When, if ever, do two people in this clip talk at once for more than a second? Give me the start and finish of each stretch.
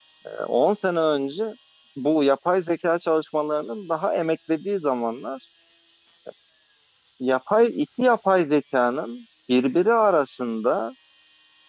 none

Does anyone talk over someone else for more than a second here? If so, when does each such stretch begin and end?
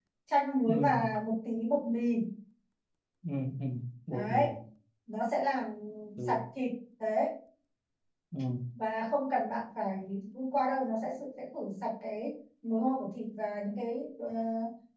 none

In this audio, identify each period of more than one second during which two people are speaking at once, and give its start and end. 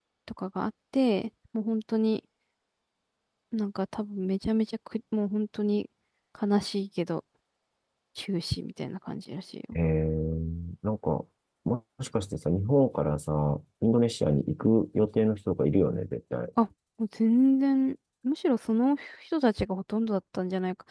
none

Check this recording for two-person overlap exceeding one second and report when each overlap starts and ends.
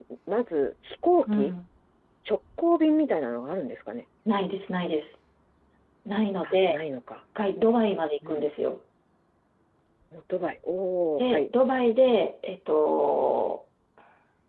none

